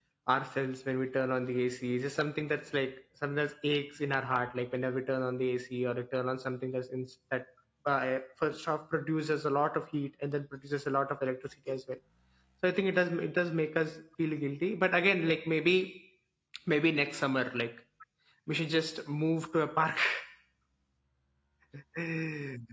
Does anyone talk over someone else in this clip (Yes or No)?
No